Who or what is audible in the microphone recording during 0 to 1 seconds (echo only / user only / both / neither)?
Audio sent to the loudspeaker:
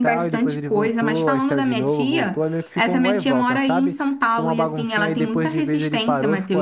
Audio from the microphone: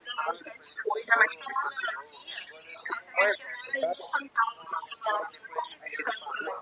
echo only